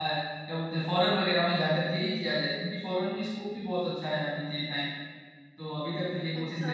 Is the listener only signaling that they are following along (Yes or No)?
No